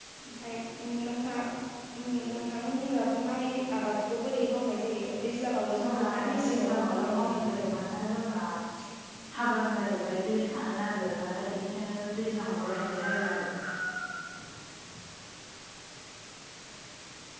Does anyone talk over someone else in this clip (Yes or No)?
Yes